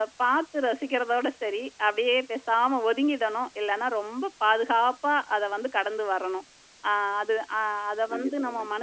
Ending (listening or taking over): listening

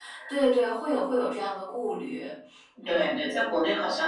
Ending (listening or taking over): taking over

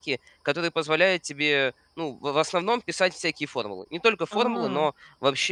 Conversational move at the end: listening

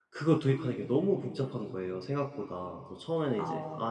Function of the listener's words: listening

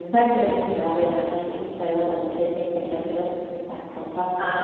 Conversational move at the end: taking over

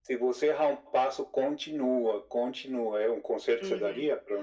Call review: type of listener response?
taking over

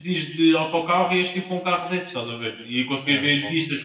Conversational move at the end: listening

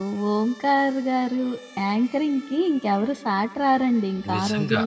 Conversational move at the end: taking over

